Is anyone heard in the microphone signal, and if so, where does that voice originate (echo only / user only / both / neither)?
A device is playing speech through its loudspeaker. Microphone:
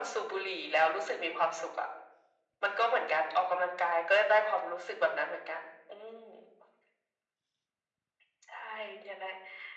echo only